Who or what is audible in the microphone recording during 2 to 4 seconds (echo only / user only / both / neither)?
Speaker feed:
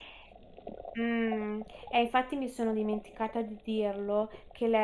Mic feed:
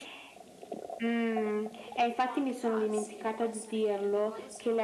both